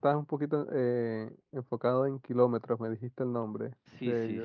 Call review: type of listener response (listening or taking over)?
taking over